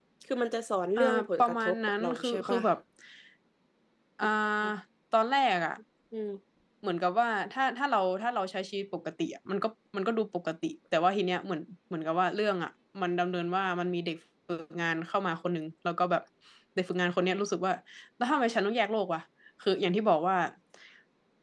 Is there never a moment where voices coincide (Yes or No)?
No